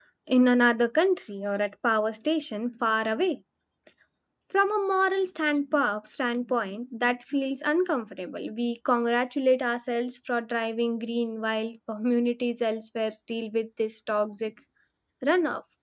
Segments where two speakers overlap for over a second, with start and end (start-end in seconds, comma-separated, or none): none